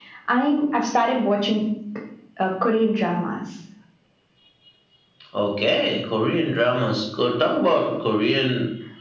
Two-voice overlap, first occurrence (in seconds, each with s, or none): none